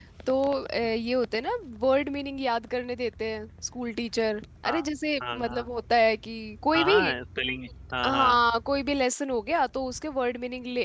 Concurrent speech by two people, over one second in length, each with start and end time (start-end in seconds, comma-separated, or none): none